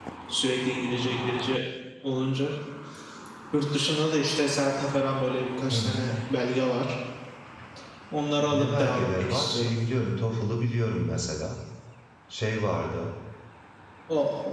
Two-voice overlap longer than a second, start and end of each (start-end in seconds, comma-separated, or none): 8.5-9.7